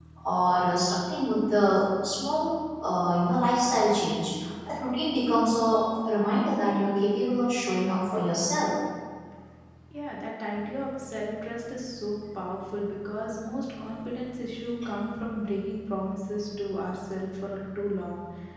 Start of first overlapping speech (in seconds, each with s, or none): none